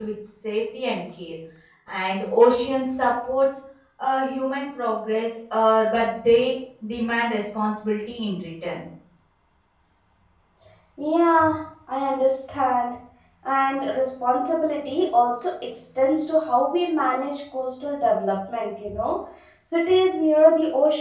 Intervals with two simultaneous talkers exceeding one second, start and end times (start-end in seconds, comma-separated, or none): none